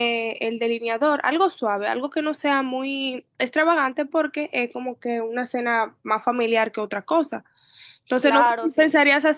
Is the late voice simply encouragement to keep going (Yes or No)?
Yes